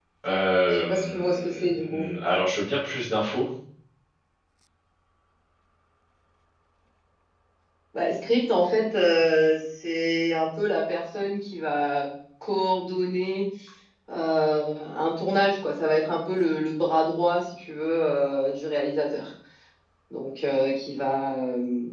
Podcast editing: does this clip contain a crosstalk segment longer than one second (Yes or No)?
Yes